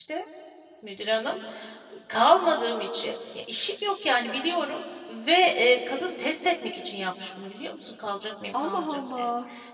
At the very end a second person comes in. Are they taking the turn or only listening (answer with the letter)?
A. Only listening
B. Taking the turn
B